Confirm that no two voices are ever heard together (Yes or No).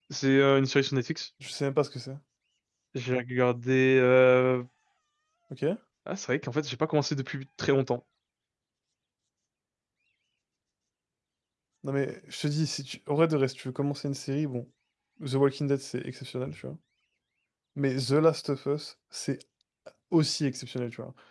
Yes